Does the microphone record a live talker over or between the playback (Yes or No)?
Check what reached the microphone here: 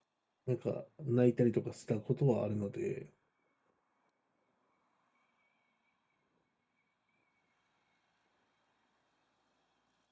Yes